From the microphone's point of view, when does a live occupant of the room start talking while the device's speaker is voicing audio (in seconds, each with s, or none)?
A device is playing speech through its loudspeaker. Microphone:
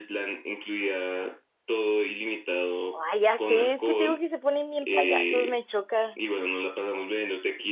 2.9 s